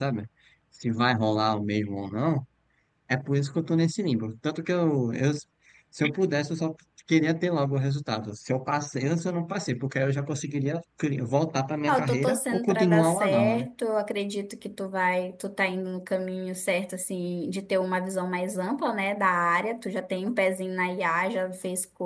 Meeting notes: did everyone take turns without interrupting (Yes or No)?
No